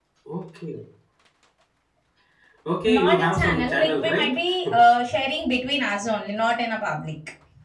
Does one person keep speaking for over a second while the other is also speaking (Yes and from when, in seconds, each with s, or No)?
Yes, from 2.9 s